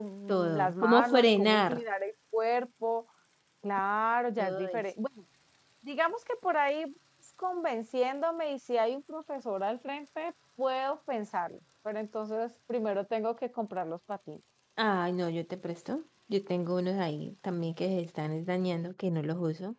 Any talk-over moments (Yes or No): Yes